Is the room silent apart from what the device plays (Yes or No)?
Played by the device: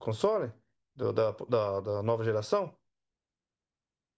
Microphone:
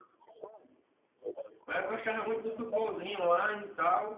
No